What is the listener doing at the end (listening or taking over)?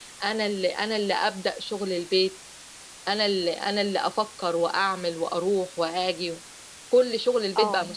listening